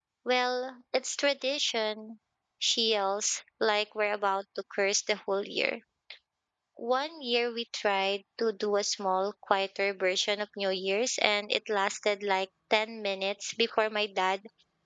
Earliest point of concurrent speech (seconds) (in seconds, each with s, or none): none